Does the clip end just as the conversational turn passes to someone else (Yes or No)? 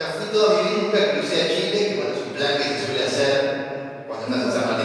No